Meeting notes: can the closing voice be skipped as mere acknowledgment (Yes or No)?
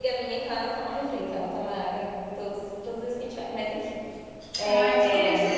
No